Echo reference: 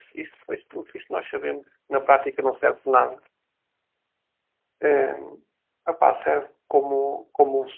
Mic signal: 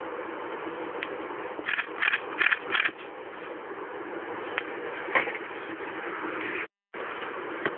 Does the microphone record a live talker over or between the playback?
No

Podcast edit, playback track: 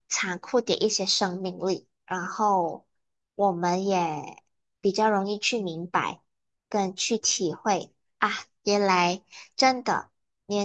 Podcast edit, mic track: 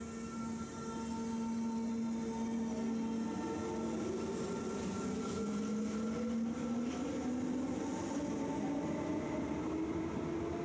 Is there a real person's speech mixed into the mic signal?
No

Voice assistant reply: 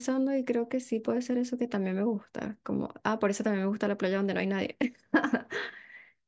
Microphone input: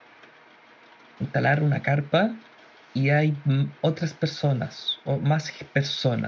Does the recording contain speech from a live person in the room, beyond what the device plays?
Yes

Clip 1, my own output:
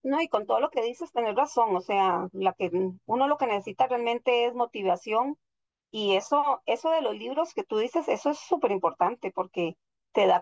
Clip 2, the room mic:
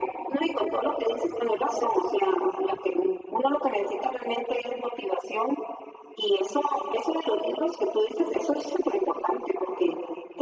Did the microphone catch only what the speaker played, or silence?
Yes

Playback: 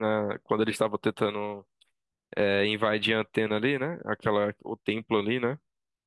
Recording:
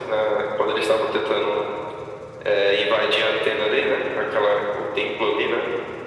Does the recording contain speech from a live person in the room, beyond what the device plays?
No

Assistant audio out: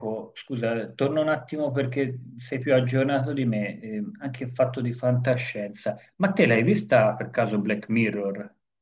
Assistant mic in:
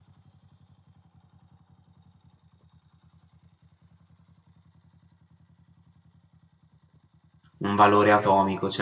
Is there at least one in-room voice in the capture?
Yes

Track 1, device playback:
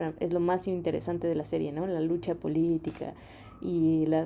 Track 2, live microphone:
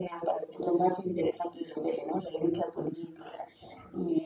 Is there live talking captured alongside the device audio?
No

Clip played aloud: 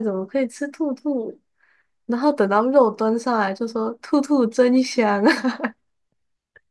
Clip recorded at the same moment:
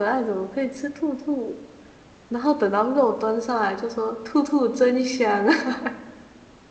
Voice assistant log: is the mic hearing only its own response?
Yes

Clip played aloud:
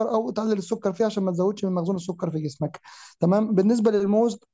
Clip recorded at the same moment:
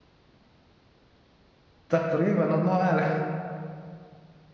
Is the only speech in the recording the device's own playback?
No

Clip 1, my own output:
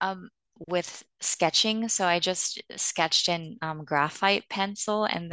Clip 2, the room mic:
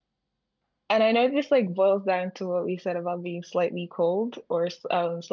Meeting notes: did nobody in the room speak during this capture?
No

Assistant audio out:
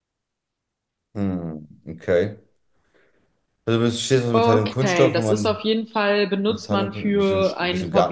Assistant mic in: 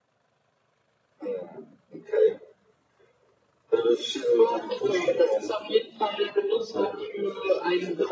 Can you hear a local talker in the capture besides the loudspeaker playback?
No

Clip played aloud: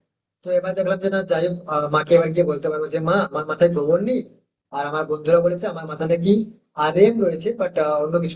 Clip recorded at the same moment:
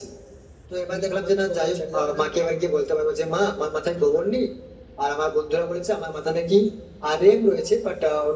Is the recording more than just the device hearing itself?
Yes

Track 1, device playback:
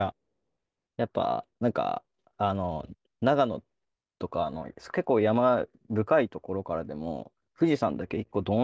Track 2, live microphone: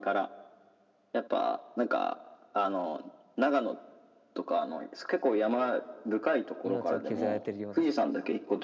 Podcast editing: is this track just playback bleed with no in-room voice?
No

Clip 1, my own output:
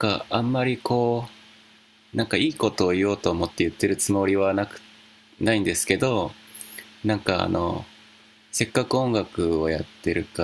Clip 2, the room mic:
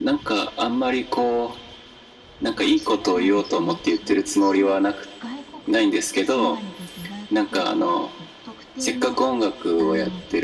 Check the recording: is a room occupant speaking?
Yes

